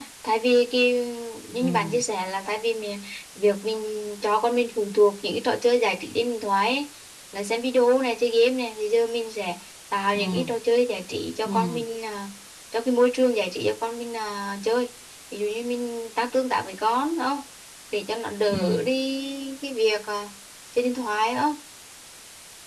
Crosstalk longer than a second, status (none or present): none